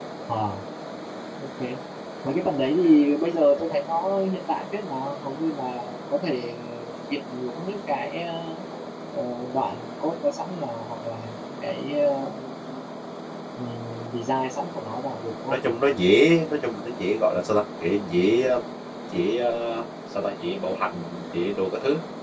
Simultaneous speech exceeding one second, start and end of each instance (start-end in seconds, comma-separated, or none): none